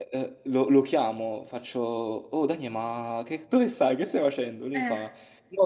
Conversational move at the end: listening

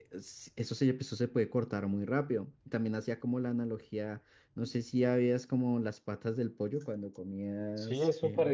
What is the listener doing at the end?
taking over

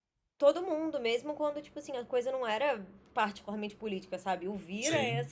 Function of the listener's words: listening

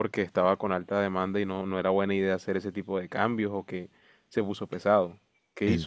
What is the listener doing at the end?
taking over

